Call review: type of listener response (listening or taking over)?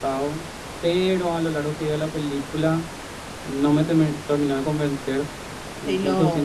listening